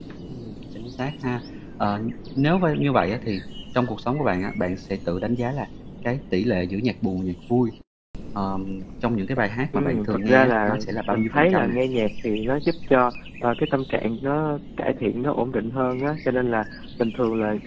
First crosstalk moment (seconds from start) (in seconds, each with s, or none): 9.7 s